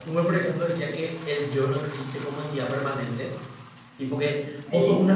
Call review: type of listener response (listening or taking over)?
listening